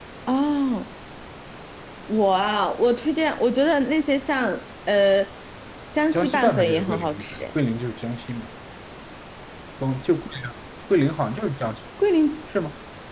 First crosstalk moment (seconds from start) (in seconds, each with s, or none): 6.1 s